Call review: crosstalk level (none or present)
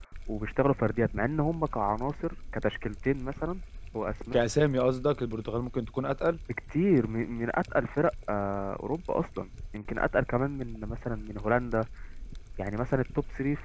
none